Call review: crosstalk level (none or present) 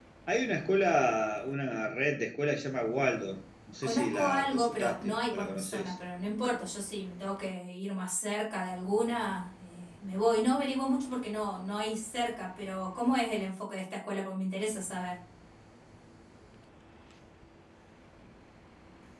present